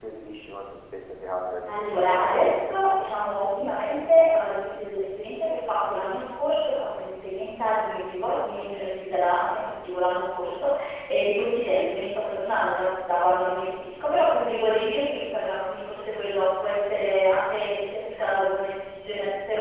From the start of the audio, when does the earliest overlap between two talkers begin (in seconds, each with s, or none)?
1.6 s